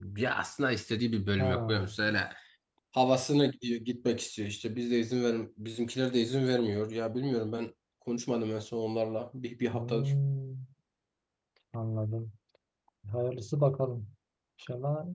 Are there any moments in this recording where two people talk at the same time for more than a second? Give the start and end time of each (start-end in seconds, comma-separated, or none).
none